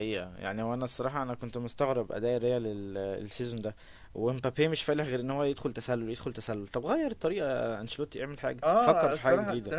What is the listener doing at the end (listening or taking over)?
taking over